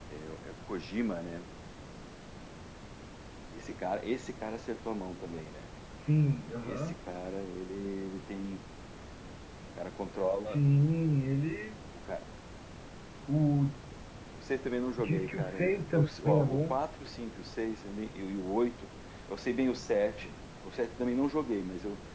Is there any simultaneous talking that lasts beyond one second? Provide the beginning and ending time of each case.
15.0-16.8

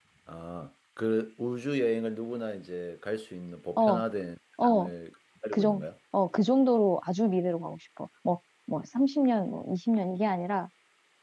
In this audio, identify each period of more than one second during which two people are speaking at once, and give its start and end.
none

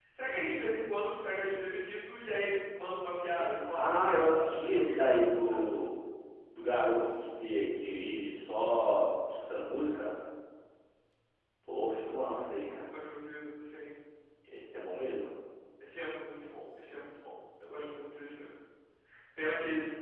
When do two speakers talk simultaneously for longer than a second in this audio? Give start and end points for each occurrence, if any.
3.7-5.7

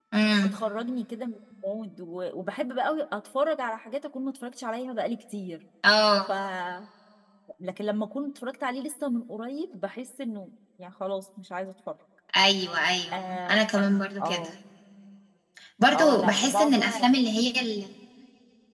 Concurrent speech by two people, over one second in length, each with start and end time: 15.9-17.2

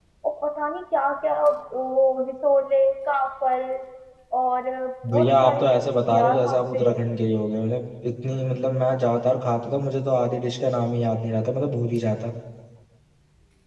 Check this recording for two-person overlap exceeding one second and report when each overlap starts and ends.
5.1-6.9

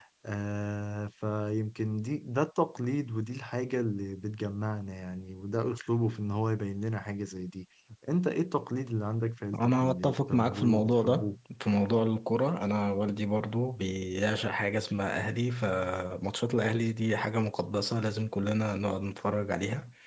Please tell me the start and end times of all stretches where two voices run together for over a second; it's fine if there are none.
9.5-11.4

